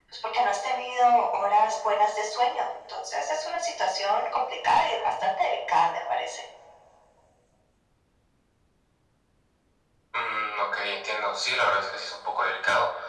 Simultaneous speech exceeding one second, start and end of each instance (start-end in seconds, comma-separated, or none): none